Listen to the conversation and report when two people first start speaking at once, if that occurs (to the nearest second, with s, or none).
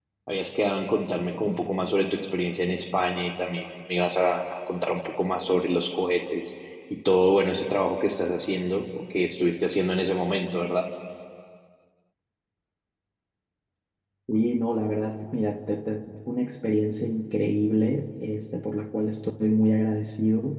none